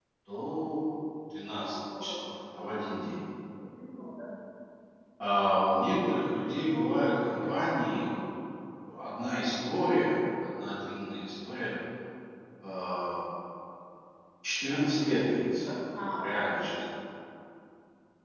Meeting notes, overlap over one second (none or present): none